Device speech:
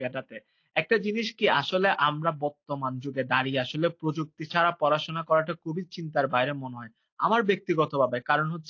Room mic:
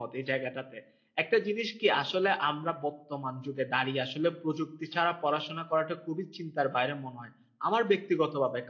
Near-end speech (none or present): none